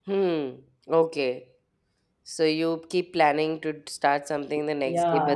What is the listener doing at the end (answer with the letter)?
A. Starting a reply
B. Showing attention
A